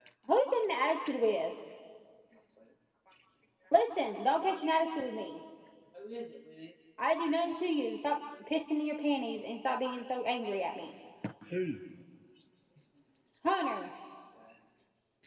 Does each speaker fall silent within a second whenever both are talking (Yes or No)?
Yes